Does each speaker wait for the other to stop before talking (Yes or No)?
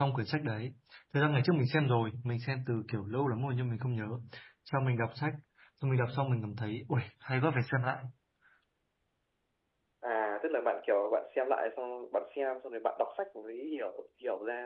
Yes